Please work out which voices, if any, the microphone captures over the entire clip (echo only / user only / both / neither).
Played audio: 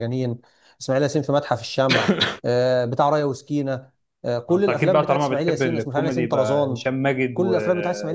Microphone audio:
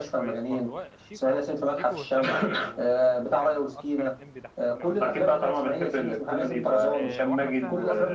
both